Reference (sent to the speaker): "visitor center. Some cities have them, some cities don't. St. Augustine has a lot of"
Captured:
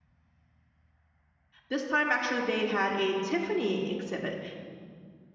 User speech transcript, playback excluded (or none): This time, actually, they had a Tiffany exhibit,